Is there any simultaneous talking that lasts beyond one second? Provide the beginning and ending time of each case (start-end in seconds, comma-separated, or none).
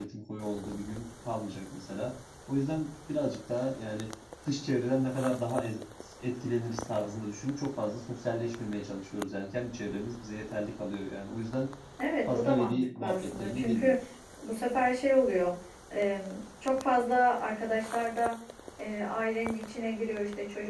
12.3-14.0